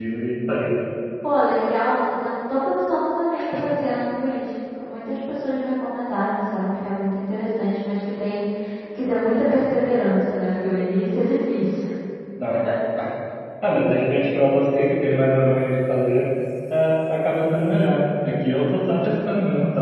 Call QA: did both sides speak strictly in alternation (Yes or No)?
Yes